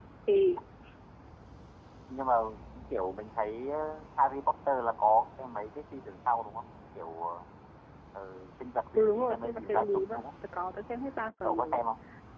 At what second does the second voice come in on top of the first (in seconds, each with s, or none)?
9.0 s